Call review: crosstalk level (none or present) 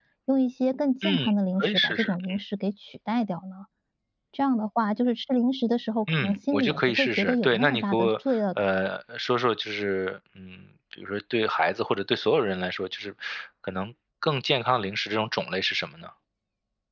present